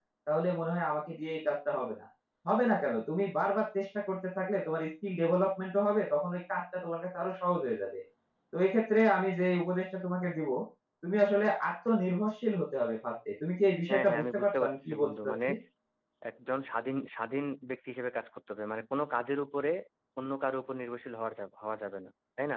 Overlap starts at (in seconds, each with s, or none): 13.9 s